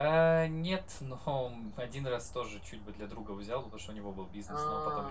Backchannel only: Yes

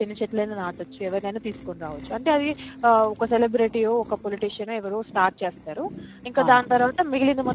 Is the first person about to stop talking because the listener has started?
No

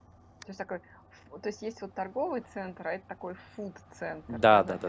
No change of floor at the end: No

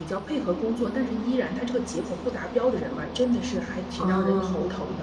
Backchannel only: Yes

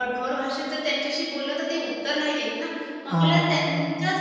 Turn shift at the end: No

